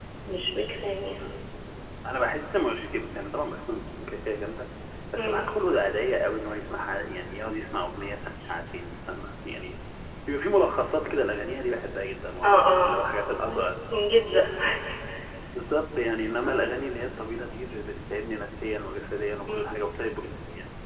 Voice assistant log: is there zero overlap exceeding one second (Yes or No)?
Yes